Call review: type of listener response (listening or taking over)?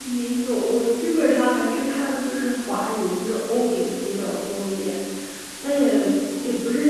listening